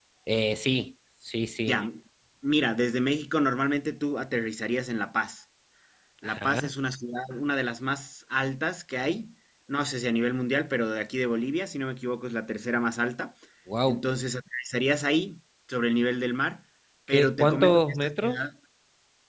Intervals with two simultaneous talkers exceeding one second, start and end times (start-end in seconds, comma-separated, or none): 17.1-18.4